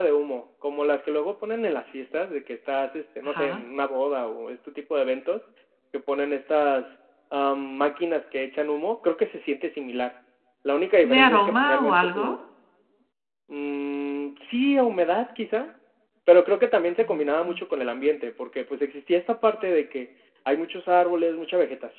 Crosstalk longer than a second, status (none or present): present